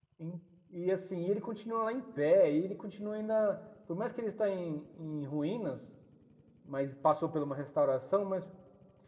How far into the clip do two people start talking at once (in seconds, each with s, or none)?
none